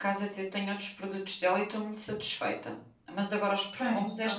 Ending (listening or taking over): listening